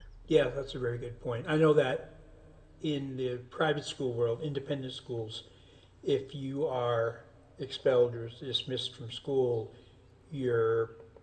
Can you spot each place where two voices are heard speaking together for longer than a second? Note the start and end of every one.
none

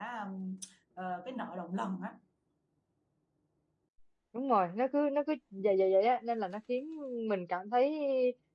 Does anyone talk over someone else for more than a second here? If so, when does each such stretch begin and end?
none

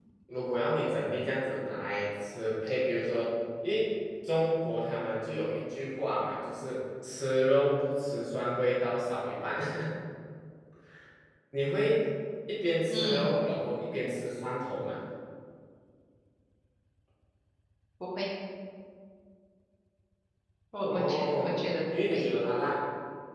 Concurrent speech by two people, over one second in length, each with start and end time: 20.9-22.3

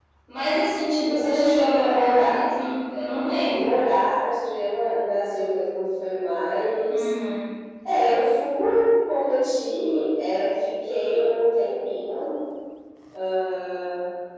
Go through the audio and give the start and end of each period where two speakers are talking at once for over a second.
1.1-2.4

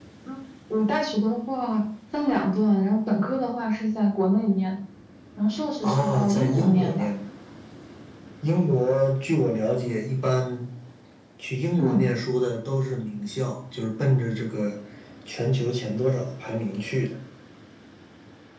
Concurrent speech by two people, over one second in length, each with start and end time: 5.8-7.0

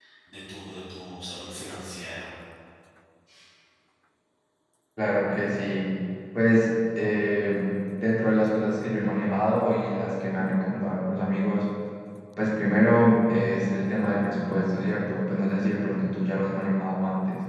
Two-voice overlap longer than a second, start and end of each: none

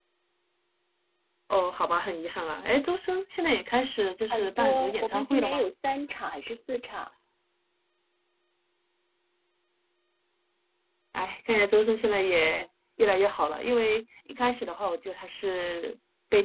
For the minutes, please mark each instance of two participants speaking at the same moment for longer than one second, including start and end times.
4.3-5.7

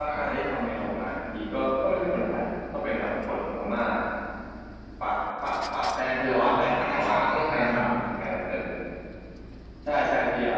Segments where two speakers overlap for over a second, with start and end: 6.4-7.9

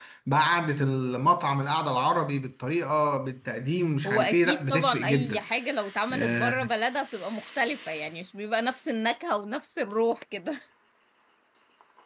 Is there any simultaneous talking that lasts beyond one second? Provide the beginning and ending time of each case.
4.0-5.4

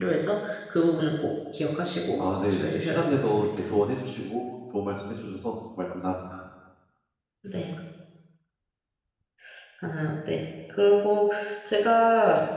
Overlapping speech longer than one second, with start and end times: 2.2-3.5

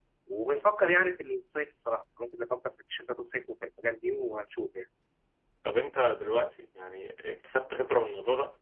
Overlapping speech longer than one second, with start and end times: none

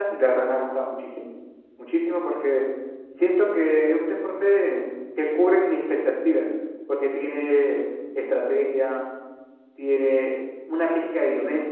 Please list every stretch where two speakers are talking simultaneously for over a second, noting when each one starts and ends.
none

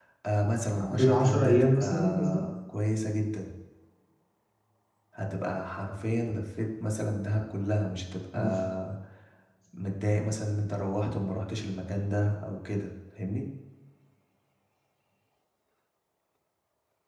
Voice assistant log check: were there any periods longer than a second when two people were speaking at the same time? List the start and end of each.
0.8-2.4

